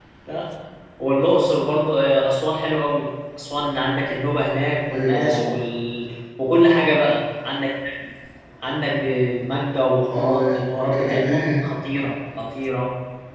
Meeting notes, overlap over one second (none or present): present